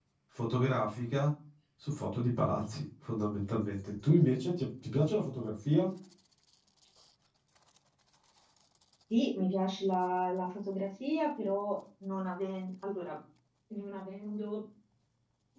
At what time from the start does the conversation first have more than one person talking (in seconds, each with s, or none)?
none